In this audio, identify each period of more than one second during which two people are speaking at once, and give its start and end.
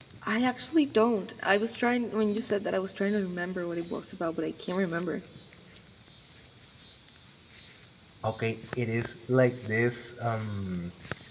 none

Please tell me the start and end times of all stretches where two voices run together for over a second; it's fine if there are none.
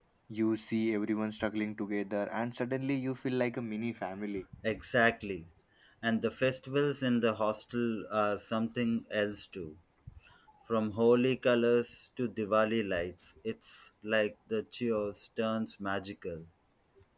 none

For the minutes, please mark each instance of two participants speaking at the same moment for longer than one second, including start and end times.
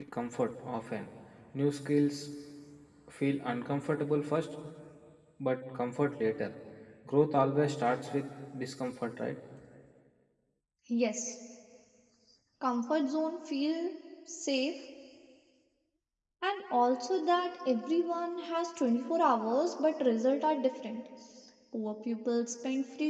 none

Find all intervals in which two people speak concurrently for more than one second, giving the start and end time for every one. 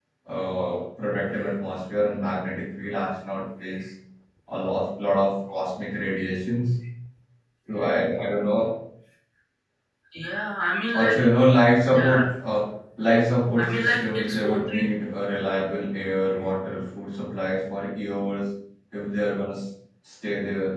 13.6-14.8

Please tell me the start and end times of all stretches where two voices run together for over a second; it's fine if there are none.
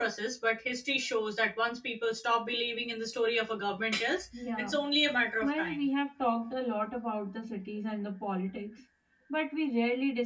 none

